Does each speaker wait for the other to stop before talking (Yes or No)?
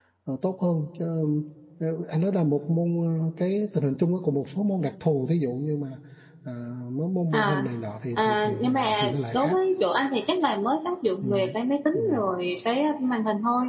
No